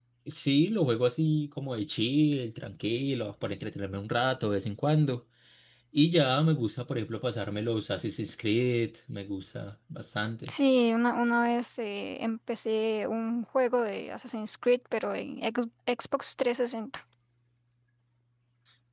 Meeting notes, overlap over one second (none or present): none